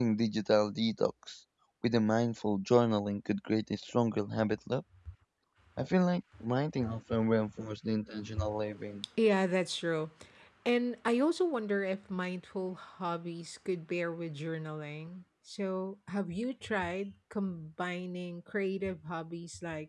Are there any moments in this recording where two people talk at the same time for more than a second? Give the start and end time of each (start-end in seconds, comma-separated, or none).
none